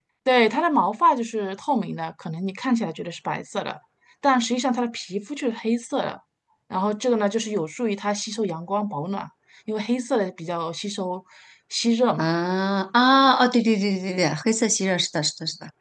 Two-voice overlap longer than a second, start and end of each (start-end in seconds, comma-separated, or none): none